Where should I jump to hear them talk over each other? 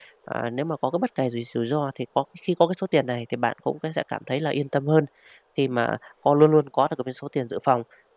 none

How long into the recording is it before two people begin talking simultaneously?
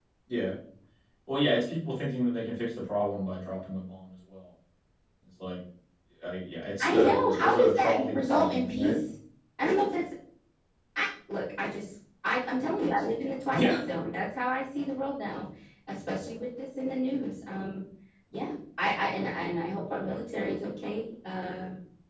6.8 s

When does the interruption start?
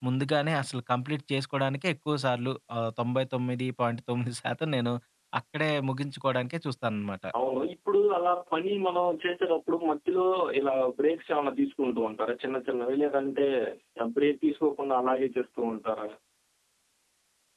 none

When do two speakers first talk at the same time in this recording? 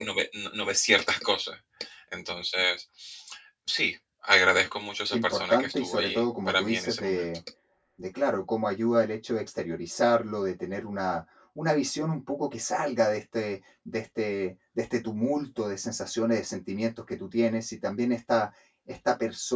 5.1 s

